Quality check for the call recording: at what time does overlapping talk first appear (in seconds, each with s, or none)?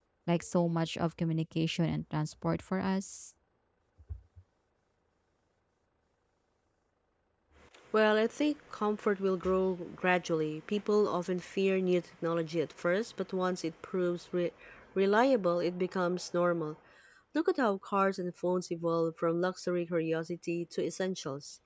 none